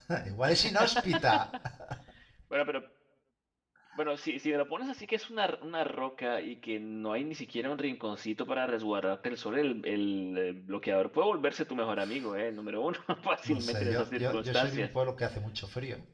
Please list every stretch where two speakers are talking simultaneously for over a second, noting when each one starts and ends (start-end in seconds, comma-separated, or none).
13.4-14.9